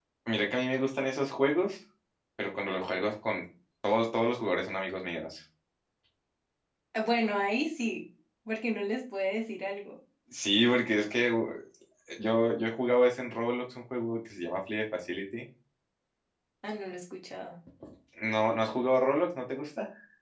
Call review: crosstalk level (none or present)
none